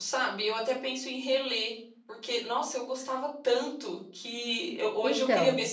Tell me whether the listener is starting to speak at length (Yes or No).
No